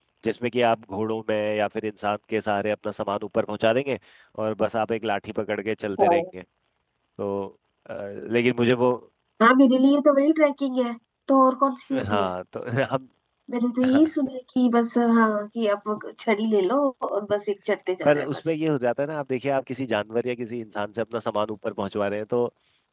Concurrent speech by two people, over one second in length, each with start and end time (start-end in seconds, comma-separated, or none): none